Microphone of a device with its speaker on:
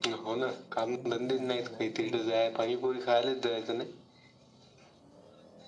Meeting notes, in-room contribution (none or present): present